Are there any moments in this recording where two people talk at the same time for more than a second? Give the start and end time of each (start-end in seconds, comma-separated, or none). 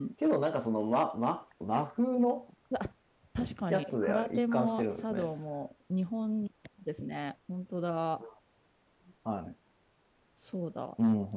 3.7-5.3